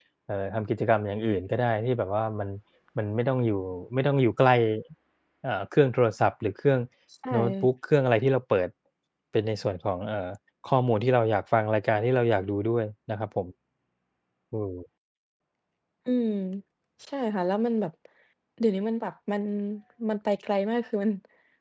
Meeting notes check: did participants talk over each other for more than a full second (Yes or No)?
No